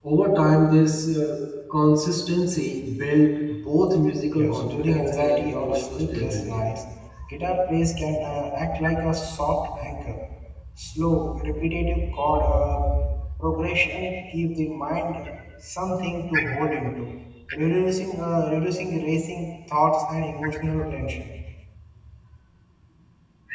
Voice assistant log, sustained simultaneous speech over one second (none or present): present